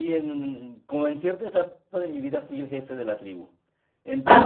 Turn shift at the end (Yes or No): No